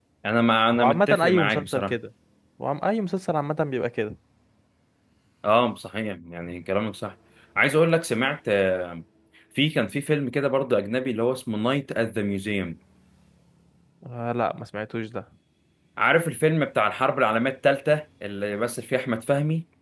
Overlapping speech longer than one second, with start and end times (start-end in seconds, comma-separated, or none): 0.8-2.0